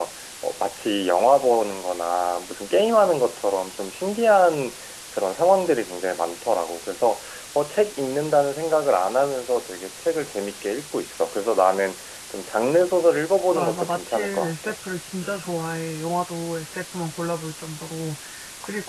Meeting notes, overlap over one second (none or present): present